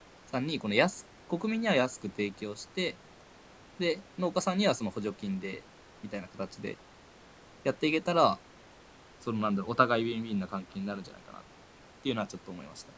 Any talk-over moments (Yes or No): No